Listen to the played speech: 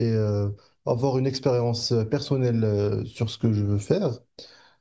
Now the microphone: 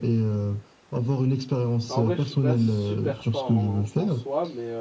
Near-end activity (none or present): present